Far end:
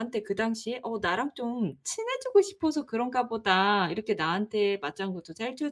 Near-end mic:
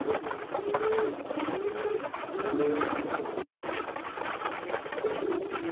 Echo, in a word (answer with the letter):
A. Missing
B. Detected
A